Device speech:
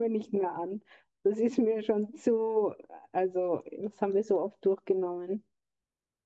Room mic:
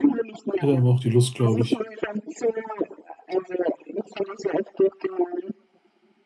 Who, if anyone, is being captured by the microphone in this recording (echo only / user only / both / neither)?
both